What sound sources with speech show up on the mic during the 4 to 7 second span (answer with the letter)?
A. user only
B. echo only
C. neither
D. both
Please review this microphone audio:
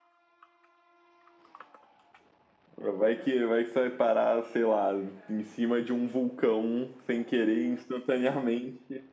B